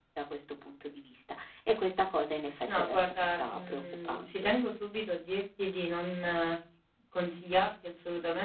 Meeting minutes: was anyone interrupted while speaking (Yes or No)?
Yes